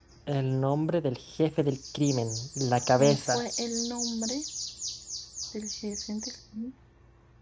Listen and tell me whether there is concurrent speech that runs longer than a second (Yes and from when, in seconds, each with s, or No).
No